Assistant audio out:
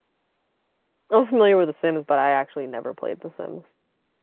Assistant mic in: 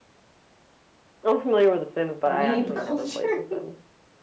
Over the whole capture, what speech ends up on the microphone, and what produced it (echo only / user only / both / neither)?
both